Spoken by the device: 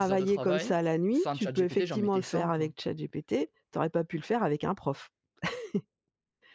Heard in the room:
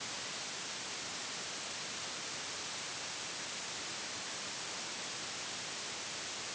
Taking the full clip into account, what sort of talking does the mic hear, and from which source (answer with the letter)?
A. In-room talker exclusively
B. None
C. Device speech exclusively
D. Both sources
B